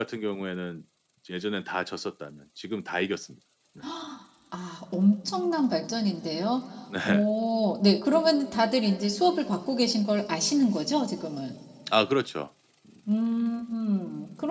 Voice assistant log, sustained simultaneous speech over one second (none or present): none